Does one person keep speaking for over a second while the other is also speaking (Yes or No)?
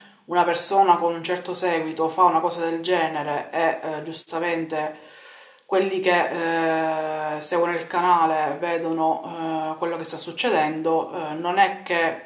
No